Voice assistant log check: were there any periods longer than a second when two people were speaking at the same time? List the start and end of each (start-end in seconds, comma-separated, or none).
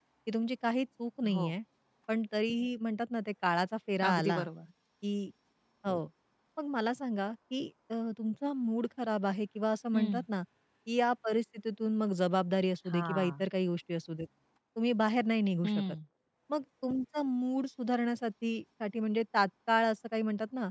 none